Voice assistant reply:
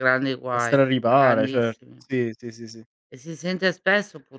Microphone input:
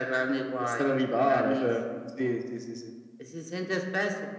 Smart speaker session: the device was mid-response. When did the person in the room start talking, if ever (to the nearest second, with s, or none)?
none